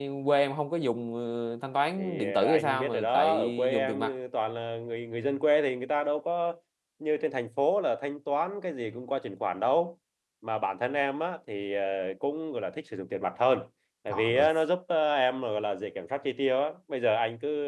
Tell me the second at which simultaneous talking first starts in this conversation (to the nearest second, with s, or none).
2 s